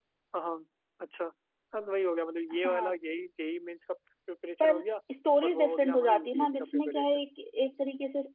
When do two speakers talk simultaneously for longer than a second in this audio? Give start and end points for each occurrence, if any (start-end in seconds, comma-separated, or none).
5.4-7.3